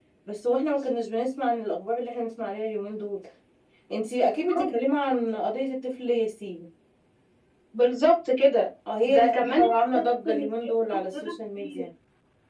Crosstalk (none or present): present